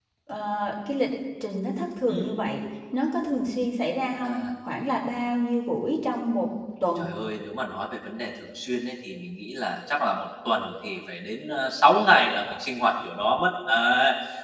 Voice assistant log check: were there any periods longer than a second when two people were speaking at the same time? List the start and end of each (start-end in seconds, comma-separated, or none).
none